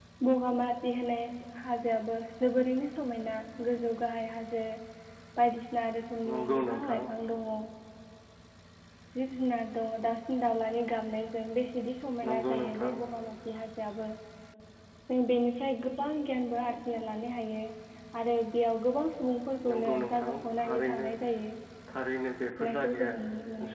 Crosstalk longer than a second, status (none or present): present